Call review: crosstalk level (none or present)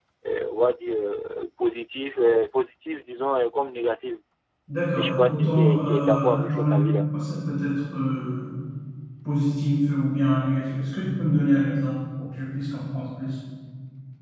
present